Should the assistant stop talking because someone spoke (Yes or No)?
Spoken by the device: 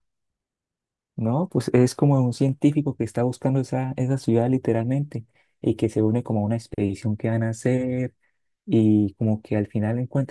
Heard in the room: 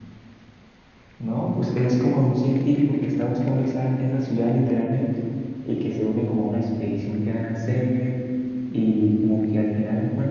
No